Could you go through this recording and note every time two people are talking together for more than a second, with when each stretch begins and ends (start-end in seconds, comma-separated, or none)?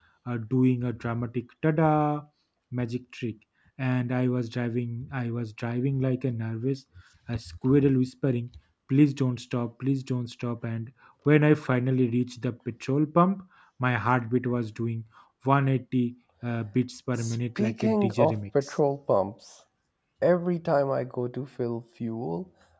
17.2-18.7